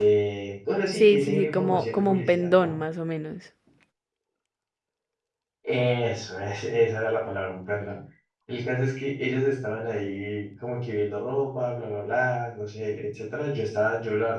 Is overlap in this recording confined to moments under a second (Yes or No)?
No